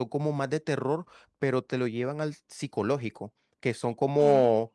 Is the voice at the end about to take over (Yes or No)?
No